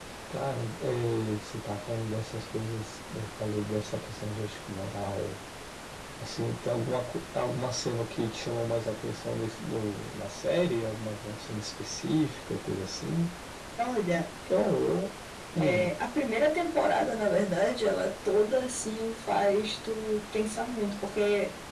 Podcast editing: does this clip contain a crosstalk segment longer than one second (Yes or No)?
No